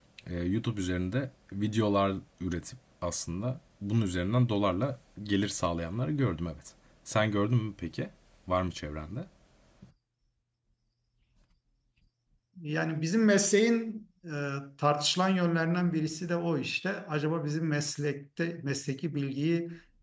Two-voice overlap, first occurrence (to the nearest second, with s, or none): none